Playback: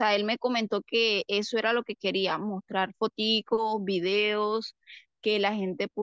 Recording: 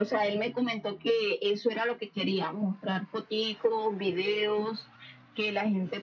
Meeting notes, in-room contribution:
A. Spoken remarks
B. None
B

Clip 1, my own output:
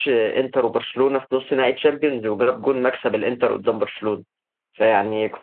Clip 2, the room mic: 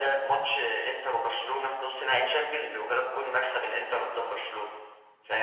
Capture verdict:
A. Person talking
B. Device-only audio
B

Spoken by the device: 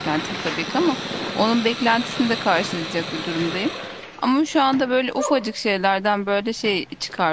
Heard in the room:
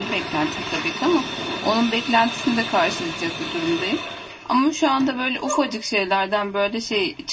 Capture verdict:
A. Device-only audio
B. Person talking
A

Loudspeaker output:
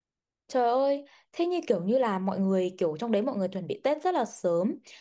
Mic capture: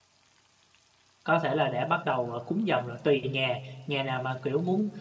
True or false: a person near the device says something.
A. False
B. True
B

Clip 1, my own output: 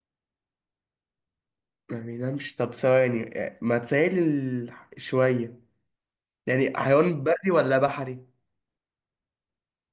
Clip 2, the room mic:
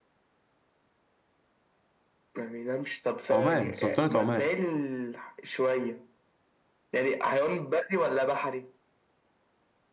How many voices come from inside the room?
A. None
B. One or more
B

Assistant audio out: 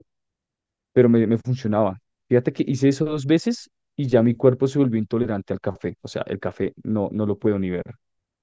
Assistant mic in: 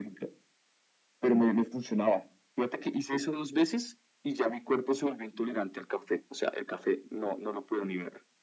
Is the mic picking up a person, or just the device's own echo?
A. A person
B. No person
B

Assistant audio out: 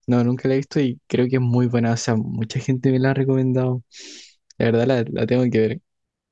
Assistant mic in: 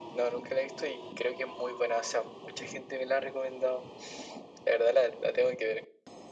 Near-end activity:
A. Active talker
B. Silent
B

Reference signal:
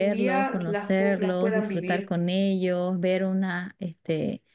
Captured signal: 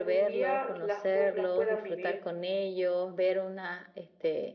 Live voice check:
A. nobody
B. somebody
A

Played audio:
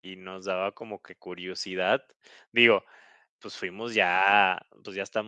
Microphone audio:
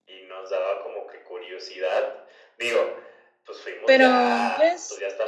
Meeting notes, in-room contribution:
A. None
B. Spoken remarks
B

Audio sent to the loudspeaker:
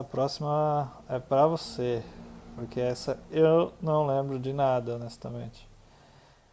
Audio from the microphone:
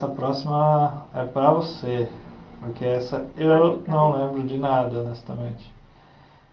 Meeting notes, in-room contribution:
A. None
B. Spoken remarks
B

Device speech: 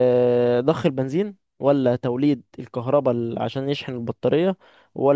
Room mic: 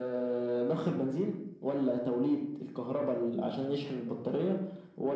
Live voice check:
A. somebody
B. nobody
B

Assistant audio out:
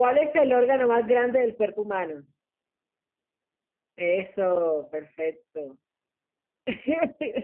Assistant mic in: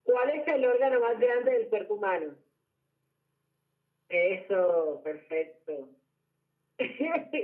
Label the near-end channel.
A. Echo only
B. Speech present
A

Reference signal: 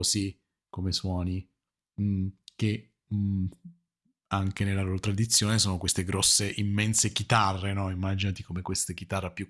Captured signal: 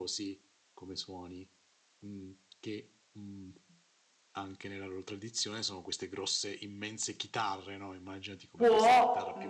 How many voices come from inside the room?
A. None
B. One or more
B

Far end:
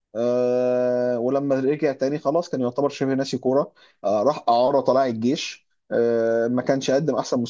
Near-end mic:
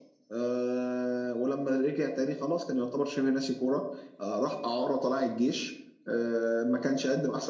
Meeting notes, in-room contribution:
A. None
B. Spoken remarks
A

